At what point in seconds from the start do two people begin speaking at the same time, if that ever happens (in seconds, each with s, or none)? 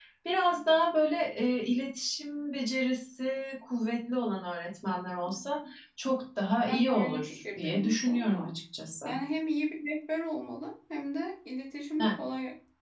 6.7 s